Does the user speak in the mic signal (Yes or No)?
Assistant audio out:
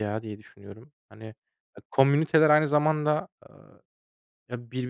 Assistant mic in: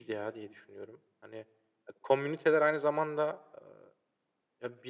No